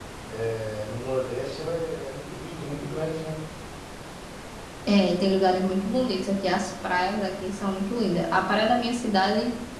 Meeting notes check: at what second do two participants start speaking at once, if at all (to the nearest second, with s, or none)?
none